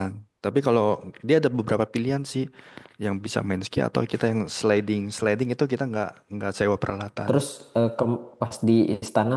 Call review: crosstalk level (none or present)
none